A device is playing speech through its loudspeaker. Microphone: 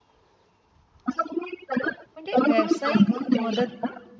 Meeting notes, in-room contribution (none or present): present